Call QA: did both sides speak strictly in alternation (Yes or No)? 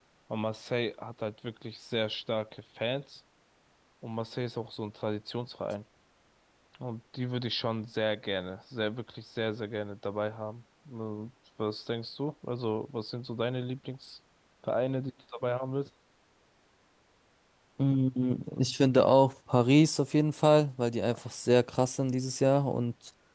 Yes